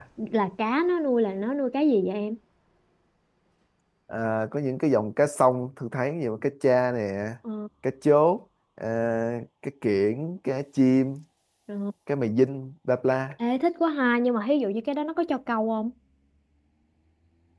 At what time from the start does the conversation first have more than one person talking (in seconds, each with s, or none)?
none